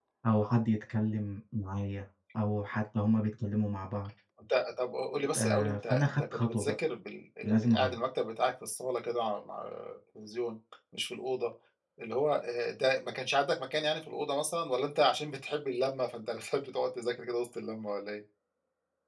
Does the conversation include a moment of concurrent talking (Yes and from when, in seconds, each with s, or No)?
Yes, from 5.4 s